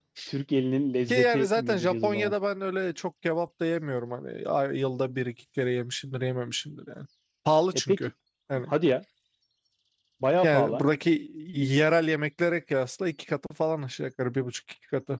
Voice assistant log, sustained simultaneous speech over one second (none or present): present